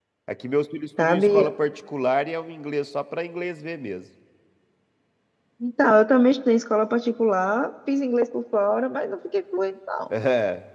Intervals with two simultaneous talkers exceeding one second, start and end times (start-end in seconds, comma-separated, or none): none